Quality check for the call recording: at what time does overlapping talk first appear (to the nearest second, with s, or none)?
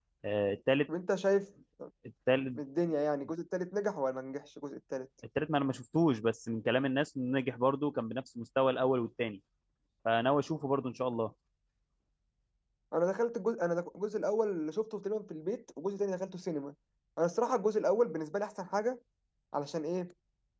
none